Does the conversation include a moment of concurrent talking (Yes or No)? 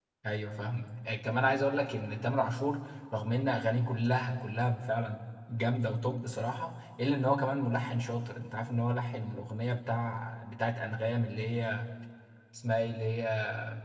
No